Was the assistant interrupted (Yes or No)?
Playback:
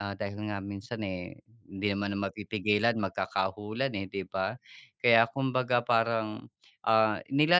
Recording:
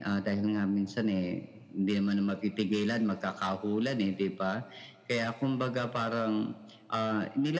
No